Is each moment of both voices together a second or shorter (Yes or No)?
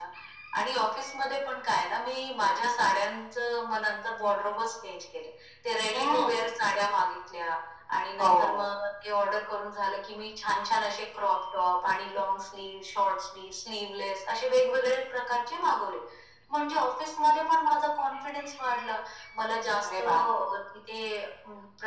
Yes